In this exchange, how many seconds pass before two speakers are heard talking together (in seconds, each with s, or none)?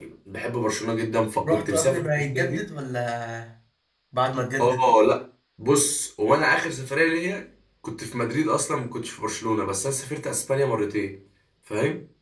1.4 s